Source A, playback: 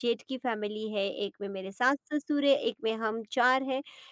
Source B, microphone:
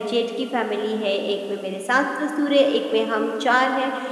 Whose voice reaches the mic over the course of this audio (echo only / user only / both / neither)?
echo only